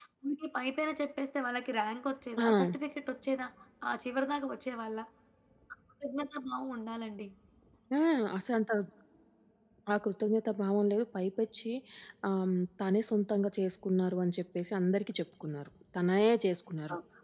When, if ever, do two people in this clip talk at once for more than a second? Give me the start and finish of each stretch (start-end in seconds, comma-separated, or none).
none